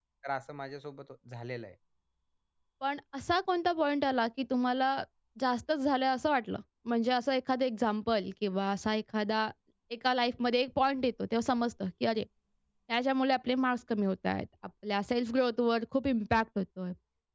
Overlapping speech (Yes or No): No